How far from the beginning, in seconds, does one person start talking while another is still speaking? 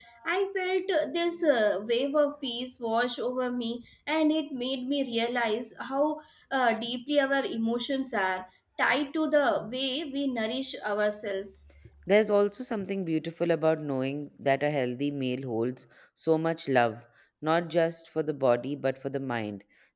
none

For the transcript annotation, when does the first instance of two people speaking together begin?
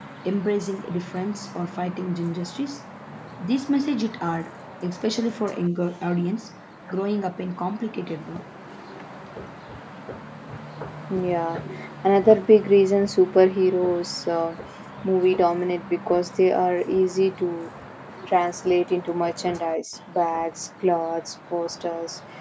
none

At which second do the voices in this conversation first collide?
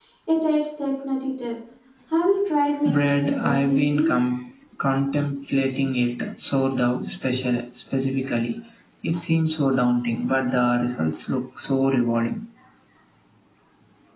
2.8 s

